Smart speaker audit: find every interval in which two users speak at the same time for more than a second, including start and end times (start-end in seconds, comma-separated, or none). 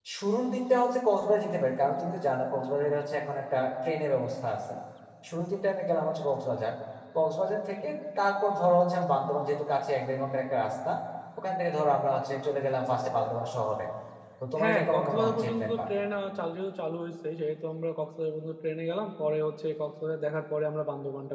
14.6-15.8